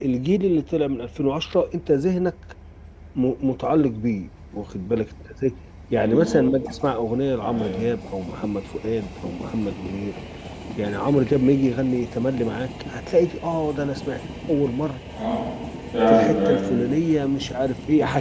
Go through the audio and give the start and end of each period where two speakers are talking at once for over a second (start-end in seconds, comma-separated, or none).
none